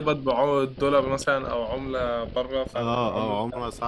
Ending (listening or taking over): taking over